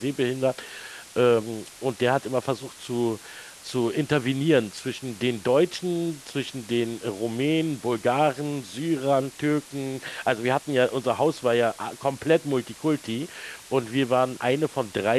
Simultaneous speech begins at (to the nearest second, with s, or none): none